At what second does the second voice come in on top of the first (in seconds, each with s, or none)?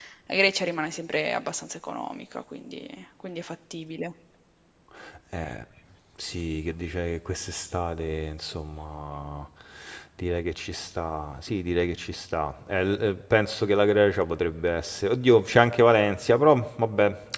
none